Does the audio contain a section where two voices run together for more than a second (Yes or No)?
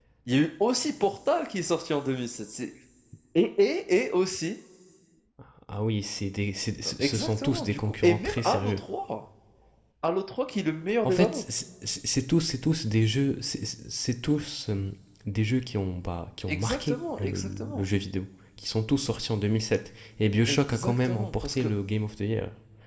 Yes